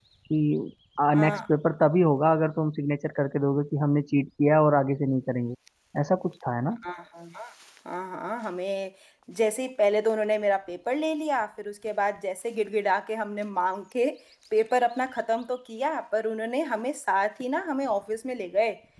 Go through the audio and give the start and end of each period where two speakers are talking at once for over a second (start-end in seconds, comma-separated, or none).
none